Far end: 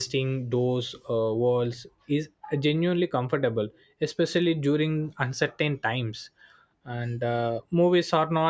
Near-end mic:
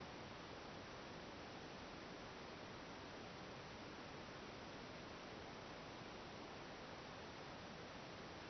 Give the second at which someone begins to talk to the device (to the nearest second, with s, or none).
none